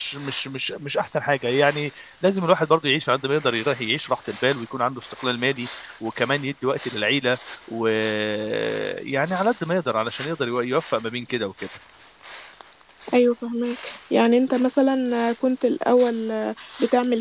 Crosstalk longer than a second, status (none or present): none